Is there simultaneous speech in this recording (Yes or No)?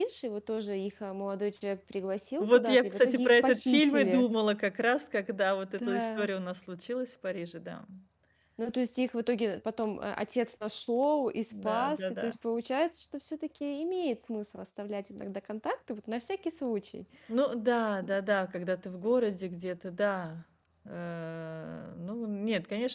Yes